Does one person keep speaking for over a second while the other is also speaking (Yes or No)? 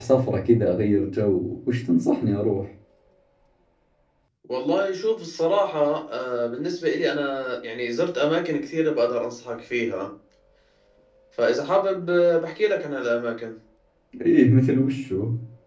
No